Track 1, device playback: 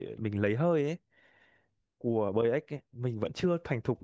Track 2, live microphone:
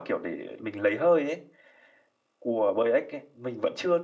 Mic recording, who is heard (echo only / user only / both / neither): echo only